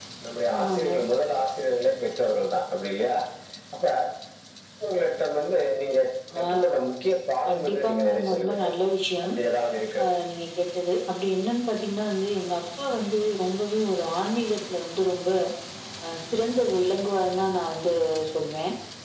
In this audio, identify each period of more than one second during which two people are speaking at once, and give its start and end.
7.5-8.7

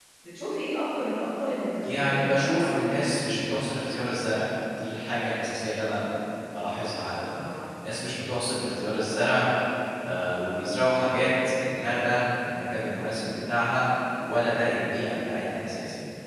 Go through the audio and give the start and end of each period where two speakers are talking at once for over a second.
1.8-3.0

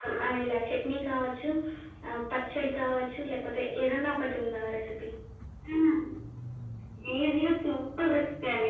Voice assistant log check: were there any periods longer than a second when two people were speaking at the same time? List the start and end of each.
none

